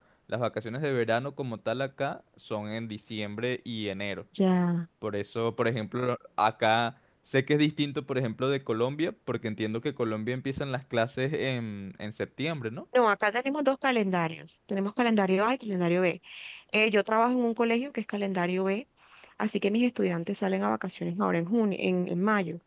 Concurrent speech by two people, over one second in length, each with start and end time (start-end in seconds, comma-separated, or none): none